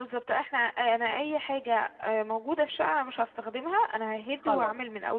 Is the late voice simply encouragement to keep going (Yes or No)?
No